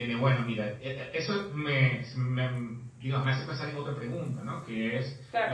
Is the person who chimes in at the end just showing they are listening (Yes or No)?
Yes